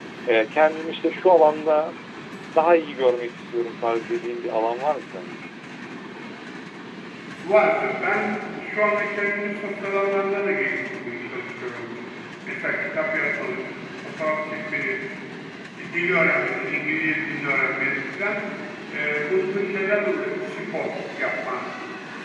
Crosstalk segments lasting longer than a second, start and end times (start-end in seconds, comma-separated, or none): none